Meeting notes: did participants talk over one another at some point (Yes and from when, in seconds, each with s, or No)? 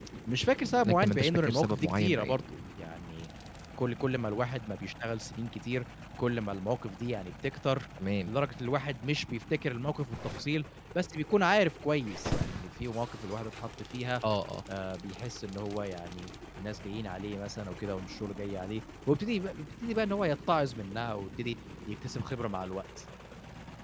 Yes, from 0.8 s